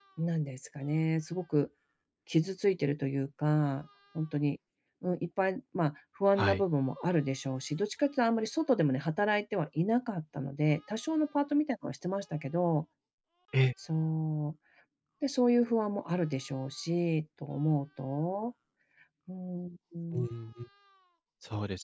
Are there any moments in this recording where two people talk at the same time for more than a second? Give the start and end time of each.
none

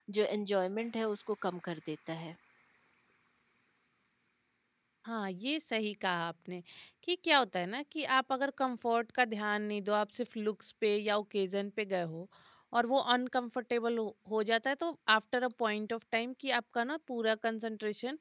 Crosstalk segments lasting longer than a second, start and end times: none

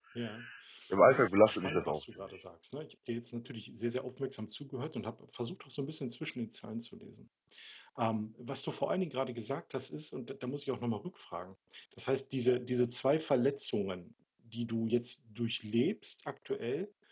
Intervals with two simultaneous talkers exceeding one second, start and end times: 1.1-2.4

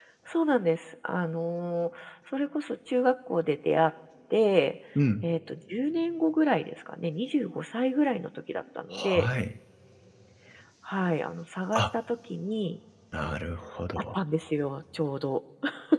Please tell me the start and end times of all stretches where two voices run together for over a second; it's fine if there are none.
none

